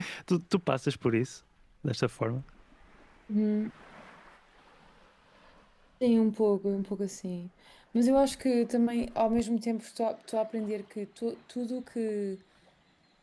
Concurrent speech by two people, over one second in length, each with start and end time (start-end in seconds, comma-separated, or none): none